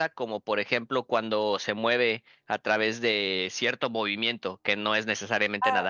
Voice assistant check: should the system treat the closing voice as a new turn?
Yes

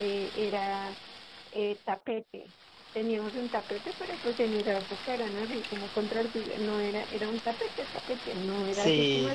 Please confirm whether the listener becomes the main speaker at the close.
No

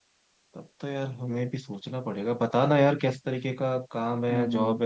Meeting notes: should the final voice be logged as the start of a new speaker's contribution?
No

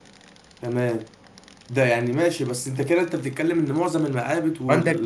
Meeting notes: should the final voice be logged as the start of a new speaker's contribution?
Yes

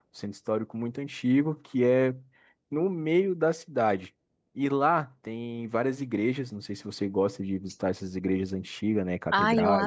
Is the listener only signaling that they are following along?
No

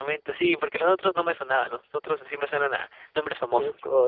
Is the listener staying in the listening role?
No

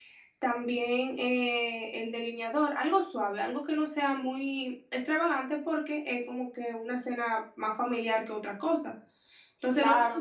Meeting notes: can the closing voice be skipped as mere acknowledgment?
Yes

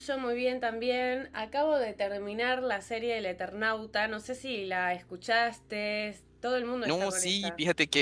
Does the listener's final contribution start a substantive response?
Yes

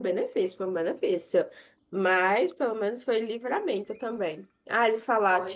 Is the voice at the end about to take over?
No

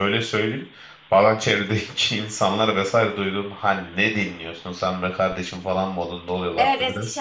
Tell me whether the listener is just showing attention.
No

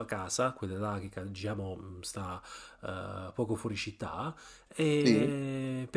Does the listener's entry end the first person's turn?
No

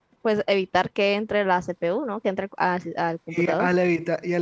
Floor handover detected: Yes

